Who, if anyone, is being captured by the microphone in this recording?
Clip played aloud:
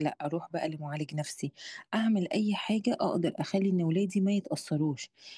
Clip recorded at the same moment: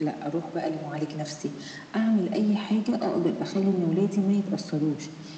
echo only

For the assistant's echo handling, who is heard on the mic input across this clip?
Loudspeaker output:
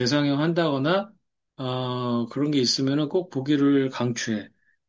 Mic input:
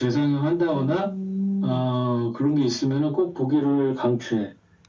both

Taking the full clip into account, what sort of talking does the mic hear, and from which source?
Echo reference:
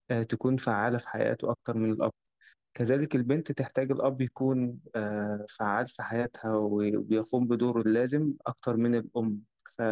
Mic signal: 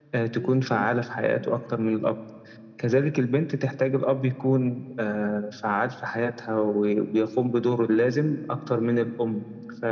both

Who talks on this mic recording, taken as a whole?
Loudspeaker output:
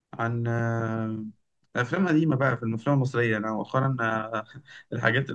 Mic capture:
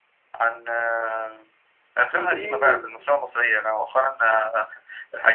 both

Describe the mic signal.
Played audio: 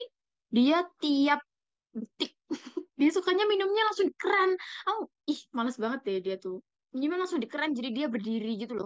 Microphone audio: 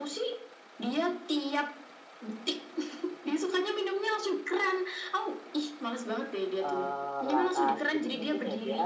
both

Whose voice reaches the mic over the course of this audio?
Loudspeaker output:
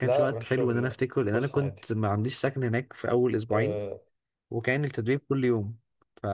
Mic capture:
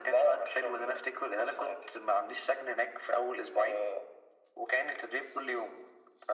echo only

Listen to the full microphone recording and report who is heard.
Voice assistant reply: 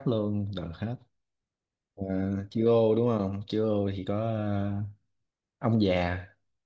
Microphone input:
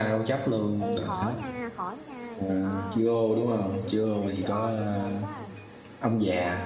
both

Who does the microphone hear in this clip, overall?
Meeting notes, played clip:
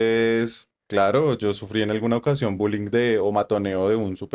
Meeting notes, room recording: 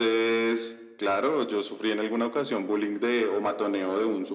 echo only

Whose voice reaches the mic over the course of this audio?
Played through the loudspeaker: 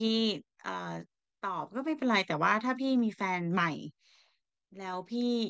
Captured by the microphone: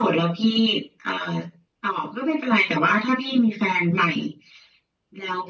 echo only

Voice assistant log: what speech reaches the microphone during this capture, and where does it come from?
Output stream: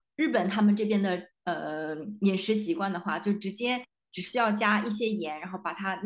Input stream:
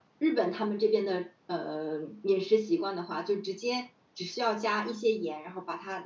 echo only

